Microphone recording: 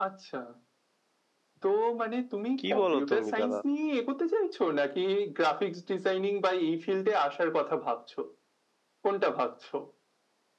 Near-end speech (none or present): present